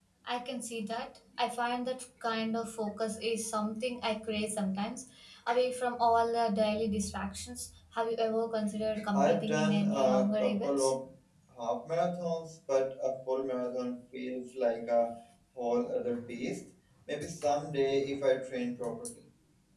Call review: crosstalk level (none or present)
present